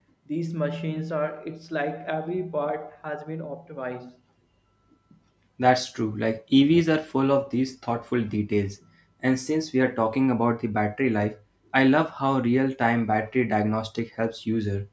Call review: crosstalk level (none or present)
none